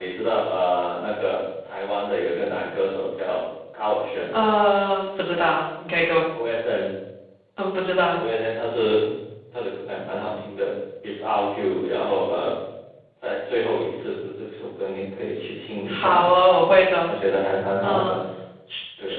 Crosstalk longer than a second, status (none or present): none